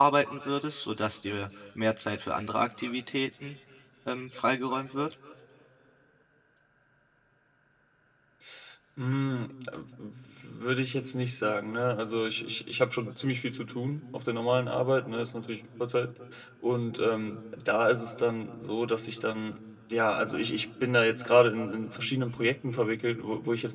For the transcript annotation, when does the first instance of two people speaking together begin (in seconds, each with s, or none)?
none